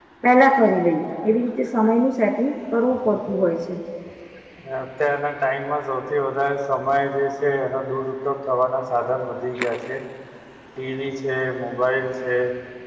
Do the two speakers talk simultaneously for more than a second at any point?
No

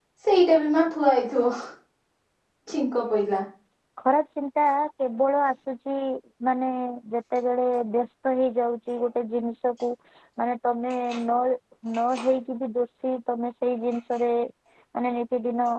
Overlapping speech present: No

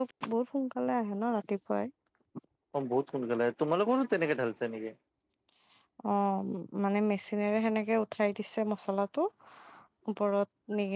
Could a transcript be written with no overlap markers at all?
Yes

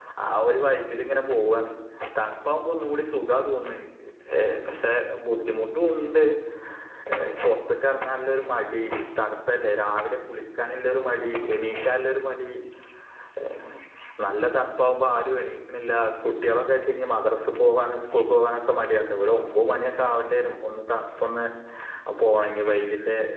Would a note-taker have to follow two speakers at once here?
No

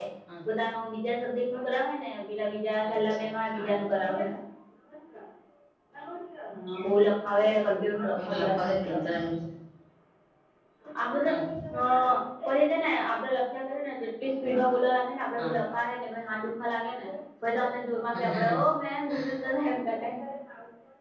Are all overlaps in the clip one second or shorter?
No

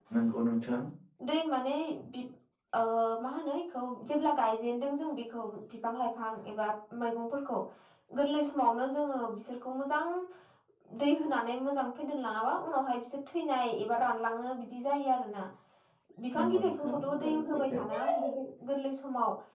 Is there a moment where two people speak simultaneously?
Yes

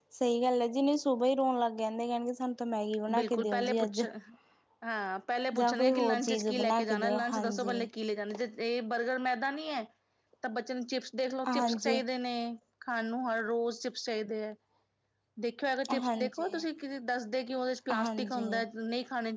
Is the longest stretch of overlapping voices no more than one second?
No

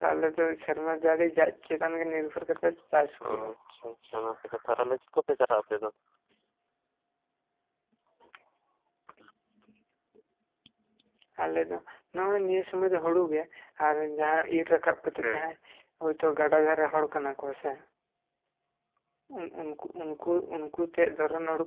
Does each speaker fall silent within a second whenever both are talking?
Yes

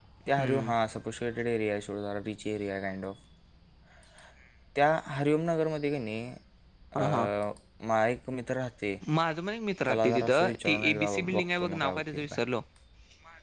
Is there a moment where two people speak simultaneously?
Yes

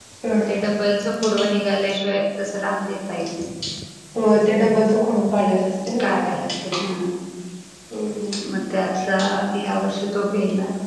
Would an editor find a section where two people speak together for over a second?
No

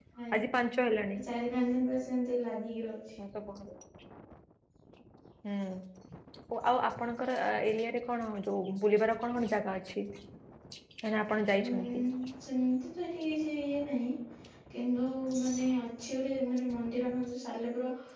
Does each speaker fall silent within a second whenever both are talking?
Yes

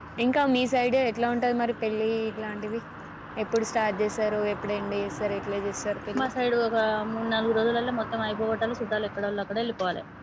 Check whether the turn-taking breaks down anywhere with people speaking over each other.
No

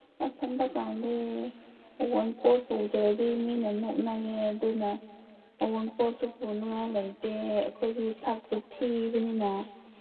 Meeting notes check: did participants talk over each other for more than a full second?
No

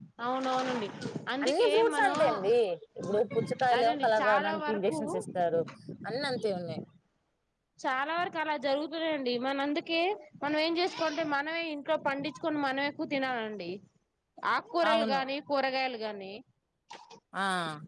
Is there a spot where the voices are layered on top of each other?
Yes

